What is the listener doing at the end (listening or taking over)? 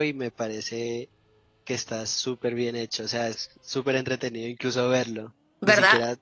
listening